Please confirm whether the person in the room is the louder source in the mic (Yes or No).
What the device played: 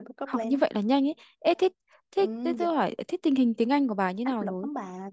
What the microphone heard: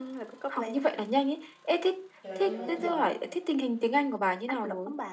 No